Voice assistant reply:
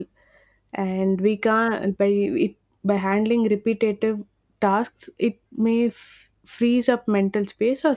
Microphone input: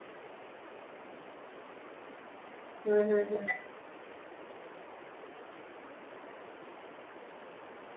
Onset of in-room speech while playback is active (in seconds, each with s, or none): 2.8 s